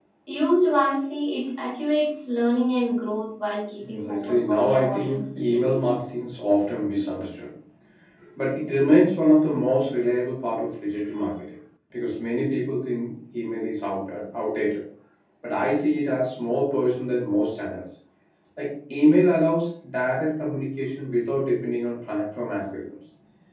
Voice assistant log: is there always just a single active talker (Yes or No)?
No